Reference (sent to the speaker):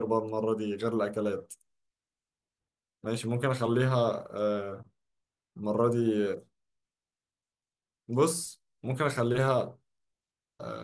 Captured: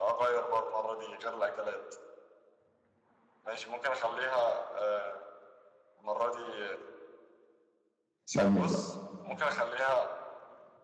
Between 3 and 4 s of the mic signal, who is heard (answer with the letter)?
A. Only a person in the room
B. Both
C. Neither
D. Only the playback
D